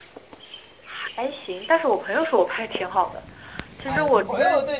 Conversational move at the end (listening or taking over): taking over